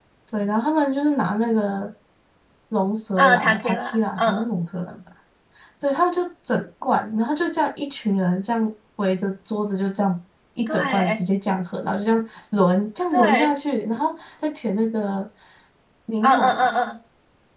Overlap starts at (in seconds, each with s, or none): 3.2 s